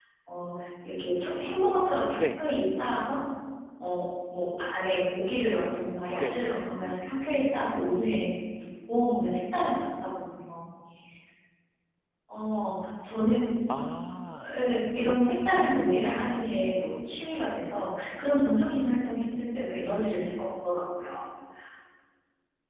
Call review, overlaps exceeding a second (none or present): present